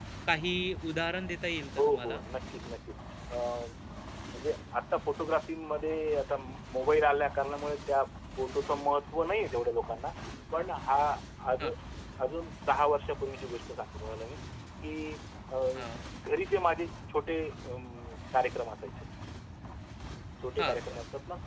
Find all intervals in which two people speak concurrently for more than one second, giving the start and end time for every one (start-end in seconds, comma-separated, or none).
none